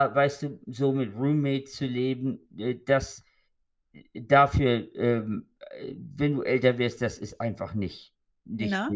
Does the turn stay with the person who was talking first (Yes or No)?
Yes